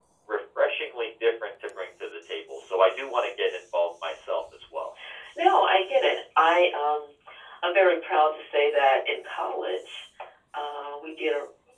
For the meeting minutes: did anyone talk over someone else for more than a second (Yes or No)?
No